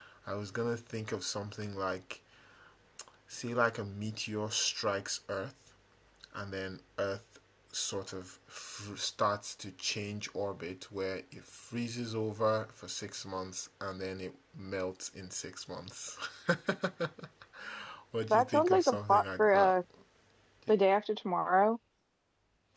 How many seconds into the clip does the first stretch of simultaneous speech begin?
18 s

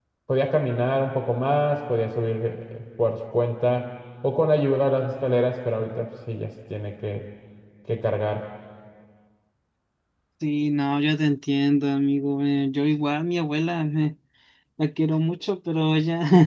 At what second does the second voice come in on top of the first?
none

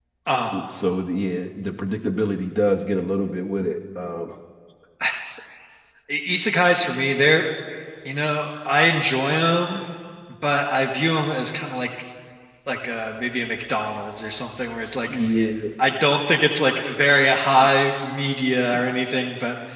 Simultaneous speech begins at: none

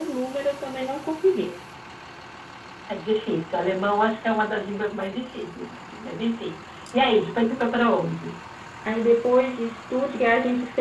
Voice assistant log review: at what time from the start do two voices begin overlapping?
none

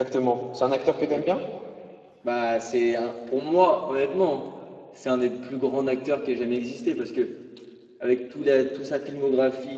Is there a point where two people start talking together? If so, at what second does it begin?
none

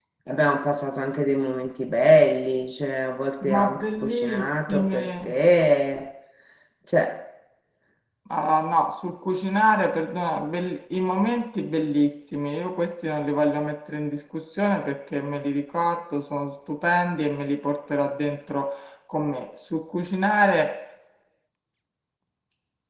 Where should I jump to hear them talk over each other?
3 s

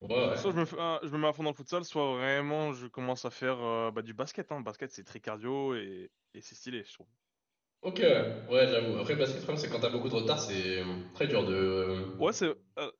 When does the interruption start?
none

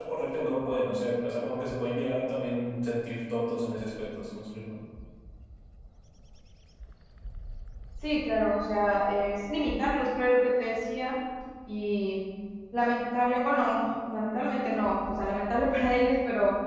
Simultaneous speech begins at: none

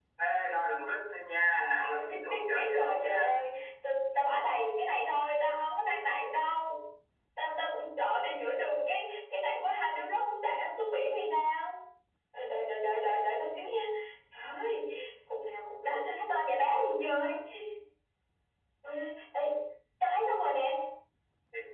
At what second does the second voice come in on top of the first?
2 s

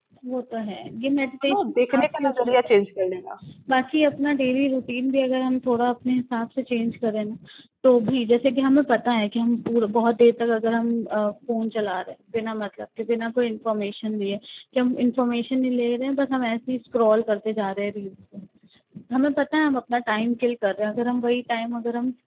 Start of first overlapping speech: 1 s

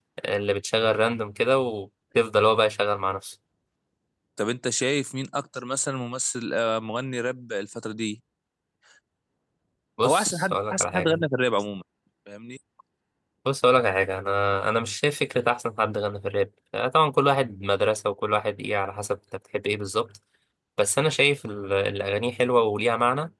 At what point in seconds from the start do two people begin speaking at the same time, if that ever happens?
10 s

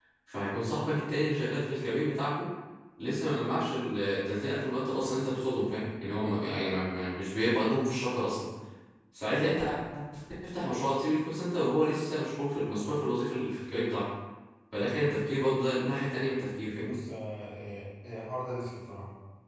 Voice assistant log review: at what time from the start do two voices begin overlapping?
none

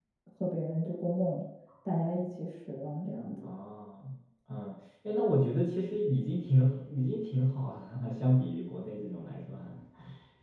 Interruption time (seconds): none

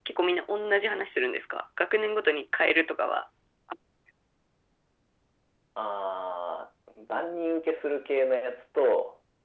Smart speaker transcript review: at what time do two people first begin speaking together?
none

